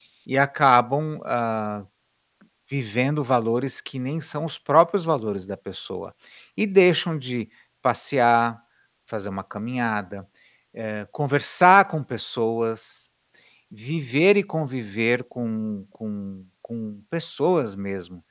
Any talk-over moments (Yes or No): No